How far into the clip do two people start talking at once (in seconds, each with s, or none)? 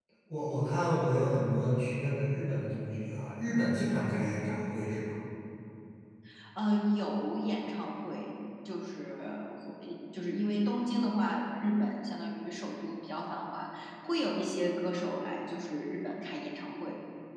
none